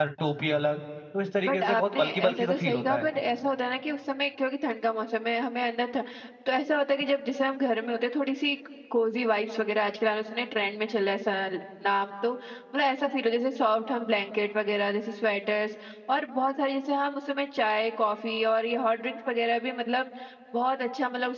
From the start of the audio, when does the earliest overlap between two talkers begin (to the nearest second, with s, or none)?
1 s